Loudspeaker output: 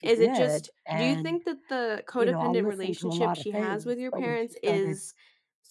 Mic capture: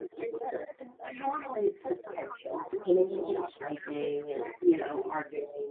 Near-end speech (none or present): present